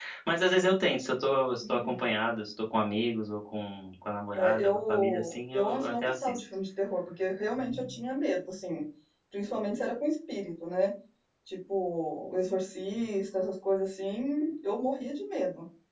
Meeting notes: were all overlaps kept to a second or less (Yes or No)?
No